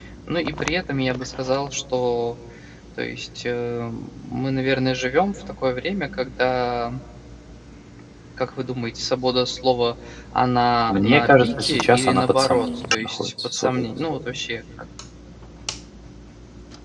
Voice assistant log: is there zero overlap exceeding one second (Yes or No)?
No